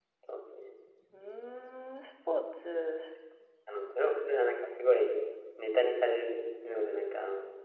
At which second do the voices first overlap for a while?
none

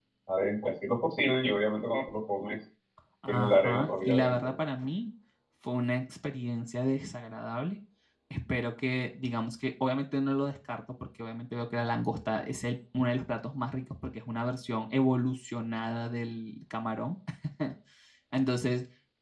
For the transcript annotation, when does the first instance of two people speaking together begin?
3.3 s

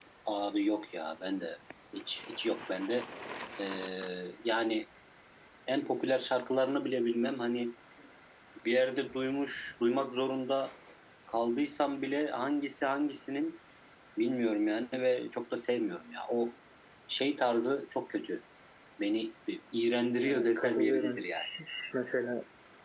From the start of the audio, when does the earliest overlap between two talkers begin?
20.2 s

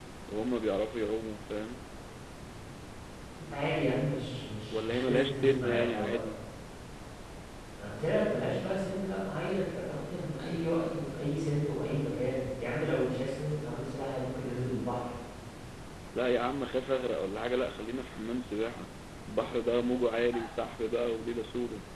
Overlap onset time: 4.7 s

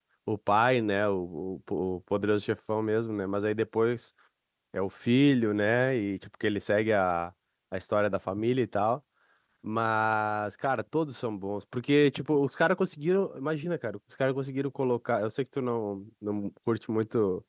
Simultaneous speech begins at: none

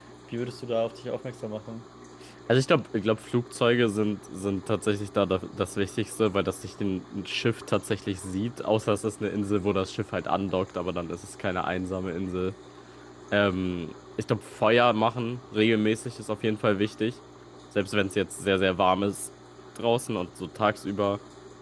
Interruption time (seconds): none

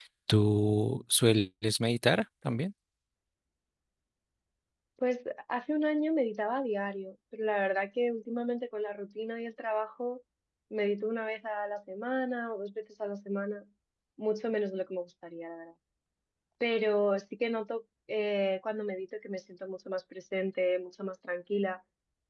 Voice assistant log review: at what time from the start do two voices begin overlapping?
none

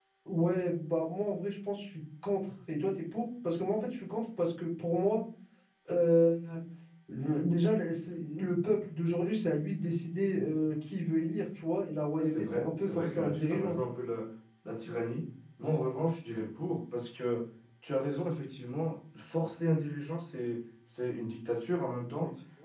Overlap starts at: 12.2 s

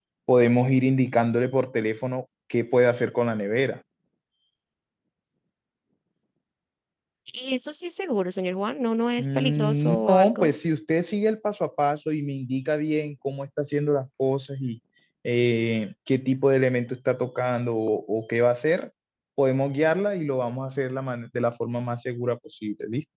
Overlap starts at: 9.2 s

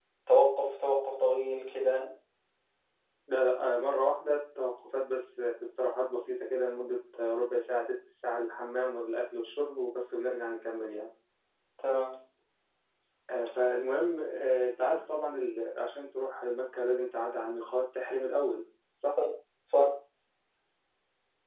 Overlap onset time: none

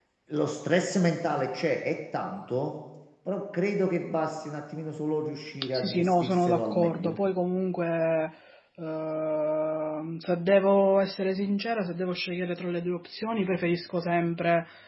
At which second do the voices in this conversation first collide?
5.6 s

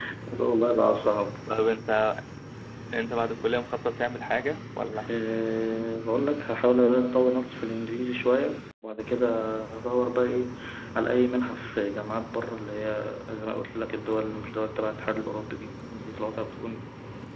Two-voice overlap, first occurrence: none

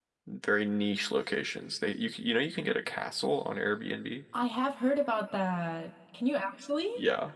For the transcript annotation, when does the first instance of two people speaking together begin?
none

